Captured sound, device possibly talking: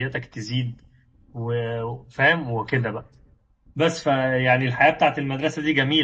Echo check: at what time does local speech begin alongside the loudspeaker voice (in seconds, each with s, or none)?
none